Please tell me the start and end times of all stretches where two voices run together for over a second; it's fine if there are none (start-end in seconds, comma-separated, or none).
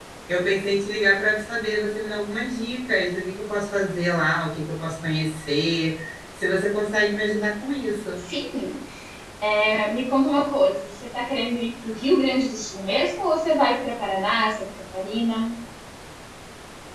none